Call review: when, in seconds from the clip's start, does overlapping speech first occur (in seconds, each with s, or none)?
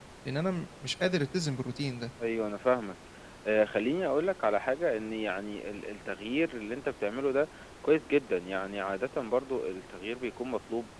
none